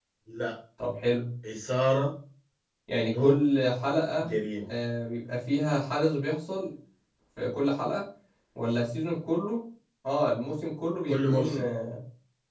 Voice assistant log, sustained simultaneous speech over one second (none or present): none